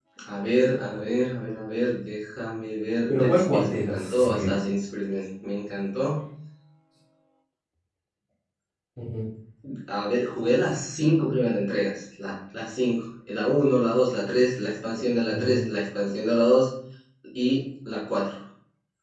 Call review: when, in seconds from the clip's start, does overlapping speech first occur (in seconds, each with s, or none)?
3.1 s